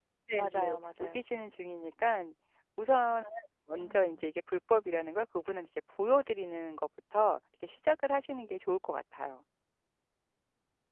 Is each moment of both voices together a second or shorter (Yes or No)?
Yes